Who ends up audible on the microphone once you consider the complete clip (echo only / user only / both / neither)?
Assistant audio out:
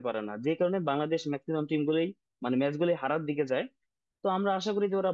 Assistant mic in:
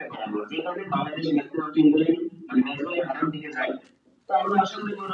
echo only